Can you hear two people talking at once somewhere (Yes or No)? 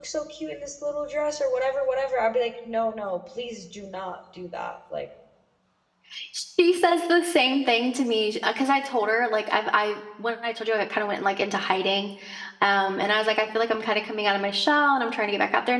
No